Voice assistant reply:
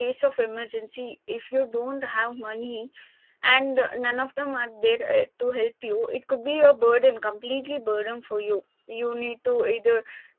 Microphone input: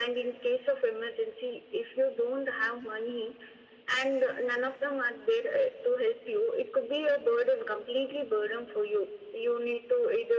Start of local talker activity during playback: none

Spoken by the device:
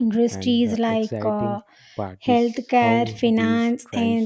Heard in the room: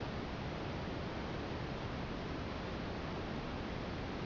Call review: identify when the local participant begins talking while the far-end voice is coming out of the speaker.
none

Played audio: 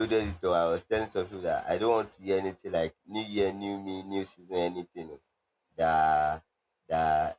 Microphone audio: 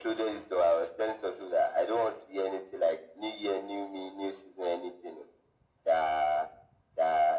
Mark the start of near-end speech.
none

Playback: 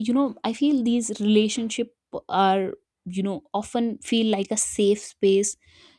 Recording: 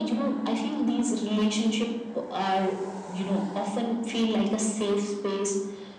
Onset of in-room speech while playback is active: none

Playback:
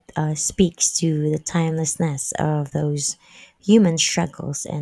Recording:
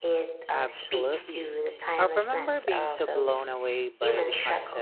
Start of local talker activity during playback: 0.5 s

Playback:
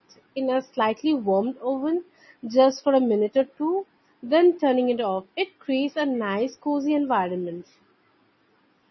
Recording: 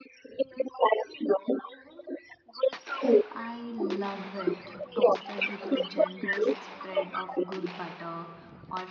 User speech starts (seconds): 3.3 s

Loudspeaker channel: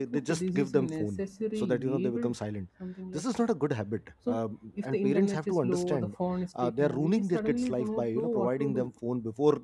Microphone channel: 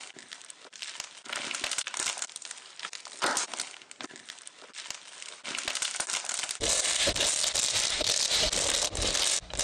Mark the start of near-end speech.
none

